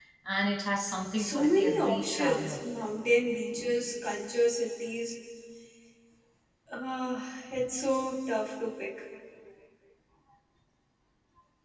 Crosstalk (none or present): present